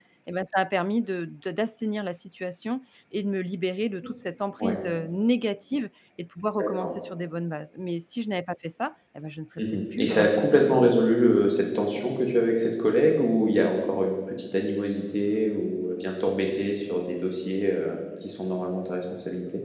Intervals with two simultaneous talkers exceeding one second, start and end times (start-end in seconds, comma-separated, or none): 9.6-11.0